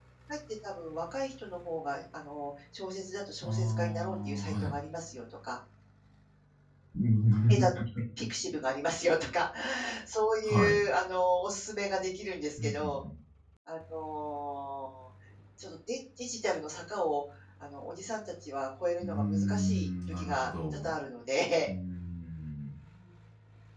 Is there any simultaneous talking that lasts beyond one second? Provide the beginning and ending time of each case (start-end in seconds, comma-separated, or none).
3.4-4.7, 19.0-20.9